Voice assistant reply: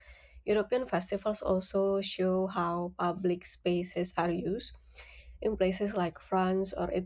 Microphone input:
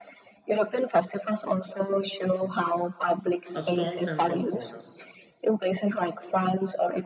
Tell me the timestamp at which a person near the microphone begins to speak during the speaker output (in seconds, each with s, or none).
3.5 s